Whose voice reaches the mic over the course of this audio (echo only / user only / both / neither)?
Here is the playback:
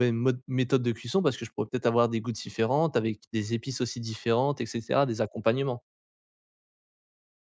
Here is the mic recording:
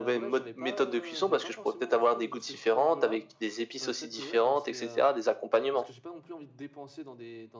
both